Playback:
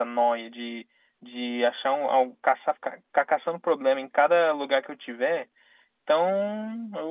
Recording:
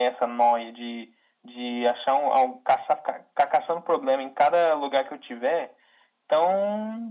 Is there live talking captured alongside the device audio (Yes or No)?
No